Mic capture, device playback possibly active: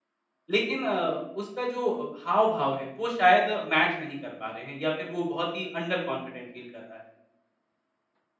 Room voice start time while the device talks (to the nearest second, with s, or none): 1 s